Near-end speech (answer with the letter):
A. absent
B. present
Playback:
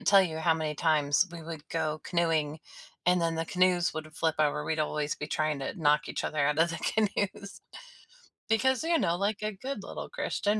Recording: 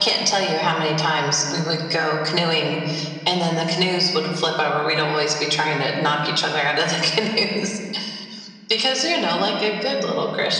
A